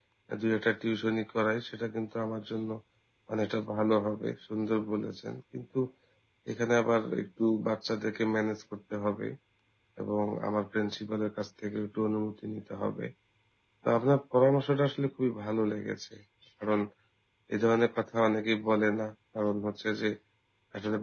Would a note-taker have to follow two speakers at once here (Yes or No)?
No